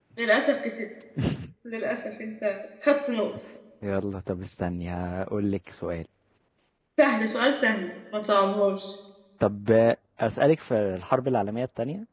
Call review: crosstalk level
none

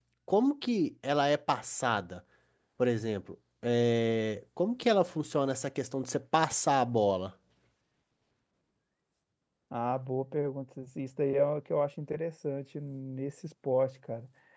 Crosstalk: none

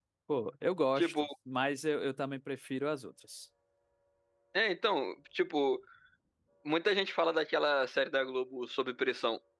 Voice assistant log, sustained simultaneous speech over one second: none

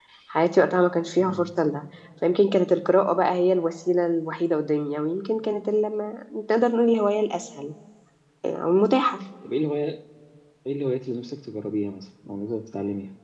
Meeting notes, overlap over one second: none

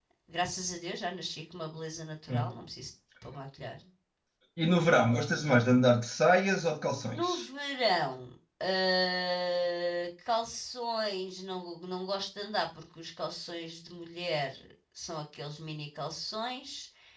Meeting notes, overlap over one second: none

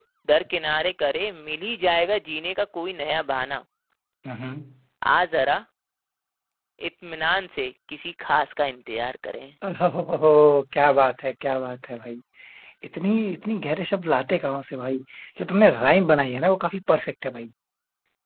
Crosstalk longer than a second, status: none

